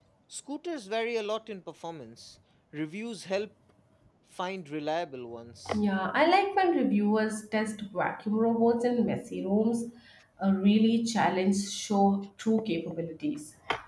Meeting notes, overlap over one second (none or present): none